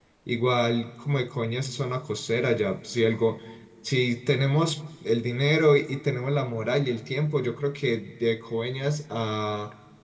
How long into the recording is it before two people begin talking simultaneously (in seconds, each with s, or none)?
none